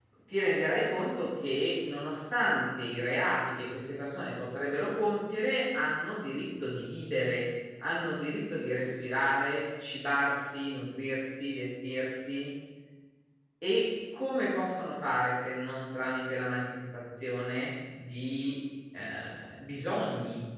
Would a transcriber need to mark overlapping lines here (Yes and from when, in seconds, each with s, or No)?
No